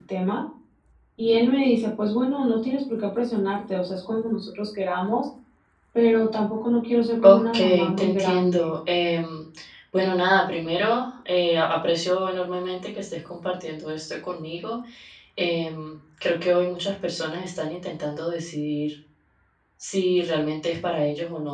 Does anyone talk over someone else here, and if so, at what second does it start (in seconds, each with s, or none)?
7.2 s